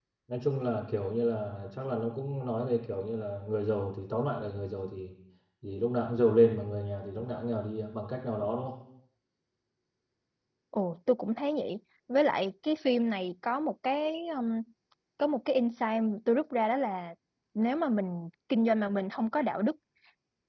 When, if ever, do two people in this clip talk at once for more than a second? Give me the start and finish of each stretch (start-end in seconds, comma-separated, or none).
none